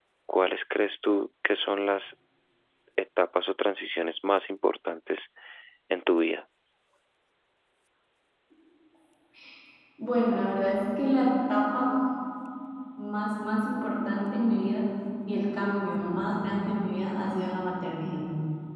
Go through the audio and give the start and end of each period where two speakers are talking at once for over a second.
none

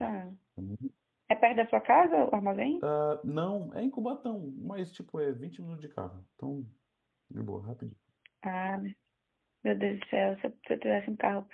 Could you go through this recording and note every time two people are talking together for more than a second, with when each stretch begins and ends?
none

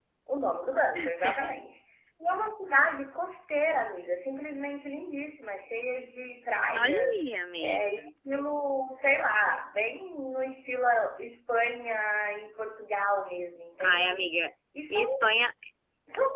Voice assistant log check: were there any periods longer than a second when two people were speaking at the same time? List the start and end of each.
none

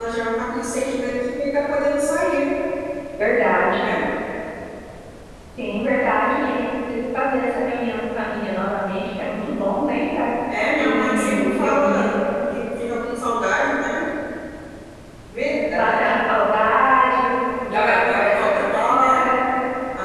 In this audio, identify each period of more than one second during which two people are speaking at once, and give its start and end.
10.8-12.1, 17.7-19.2

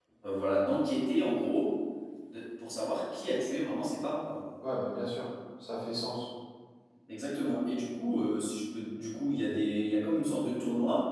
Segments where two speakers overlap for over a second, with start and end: none

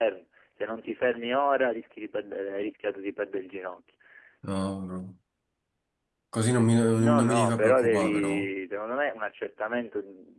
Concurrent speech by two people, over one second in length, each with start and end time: 6.9-8.5

